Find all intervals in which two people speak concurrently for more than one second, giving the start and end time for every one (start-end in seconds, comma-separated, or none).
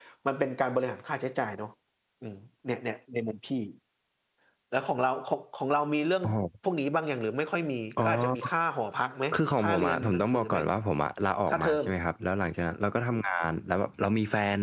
9.3-10.6